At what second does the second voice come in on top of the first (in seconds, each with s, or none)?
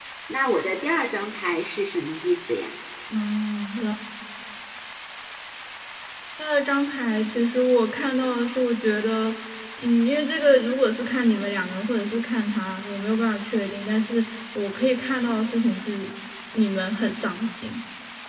none